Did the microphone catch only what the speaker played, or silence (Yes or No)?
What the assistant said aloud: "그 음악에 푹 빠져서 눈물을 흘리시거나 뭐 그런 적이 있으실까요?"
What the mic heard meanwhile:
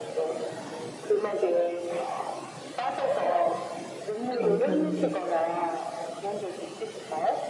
No